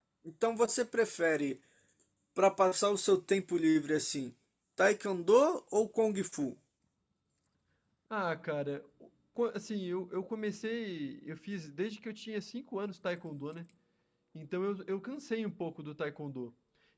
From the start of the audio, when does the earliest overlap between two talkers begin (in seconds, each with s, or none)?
none